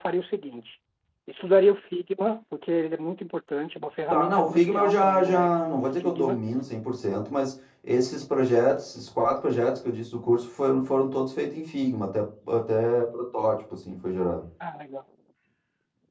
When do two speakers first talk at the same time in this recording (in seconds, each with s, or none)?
4.1 s